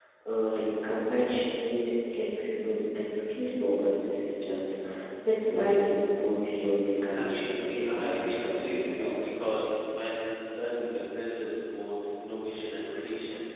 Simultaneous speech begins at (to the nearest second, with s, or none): 7 s